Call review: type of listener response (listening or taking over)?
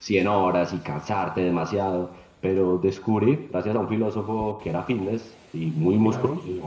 listening